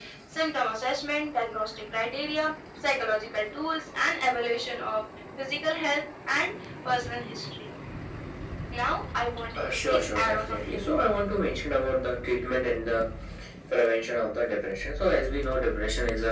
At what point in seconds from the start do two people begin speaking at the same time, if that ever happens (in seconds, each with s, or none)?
9.6 s